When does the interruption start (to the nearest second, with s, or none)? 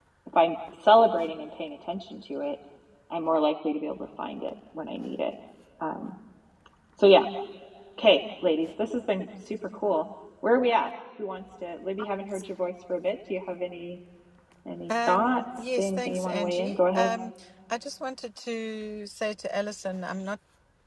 15 s